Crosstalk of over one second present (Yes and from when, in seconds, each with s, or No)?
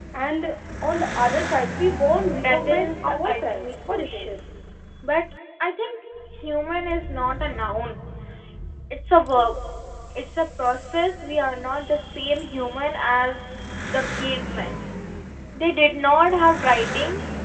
Yes, from 2.3 s